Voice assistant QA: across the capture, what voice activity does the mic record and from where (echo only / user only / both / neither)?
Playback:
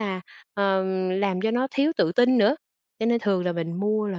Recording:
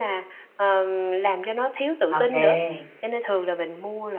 both